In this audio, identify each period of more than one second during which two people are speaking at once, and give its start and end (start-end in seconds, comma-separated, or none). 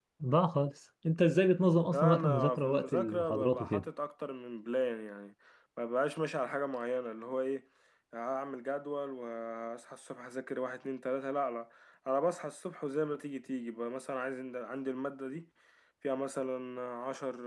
1.9-3.8